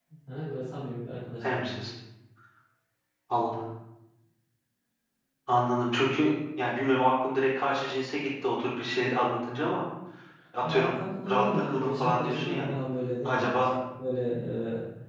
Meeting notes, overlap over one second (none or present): present